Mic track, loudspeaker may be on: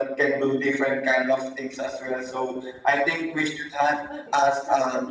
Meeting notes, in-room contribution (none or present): present